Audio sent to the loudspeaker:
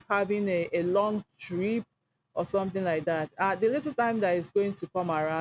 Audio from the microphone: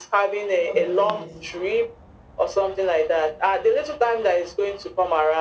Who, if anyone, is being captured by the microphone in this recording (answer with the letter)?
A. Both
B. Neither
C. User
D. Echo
A